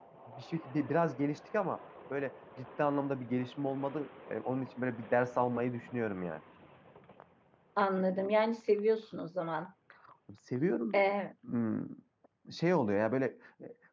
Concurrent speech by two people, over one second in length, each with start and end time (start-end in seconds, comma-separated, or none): none